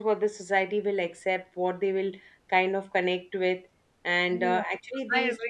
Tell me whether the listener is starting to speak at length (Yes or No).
Yes